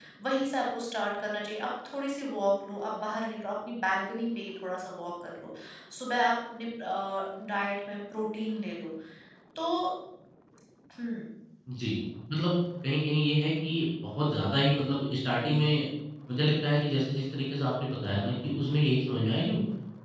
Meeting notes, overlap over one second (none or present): none